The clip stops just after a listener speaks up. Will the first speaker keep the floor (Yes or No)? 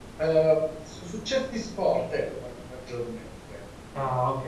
No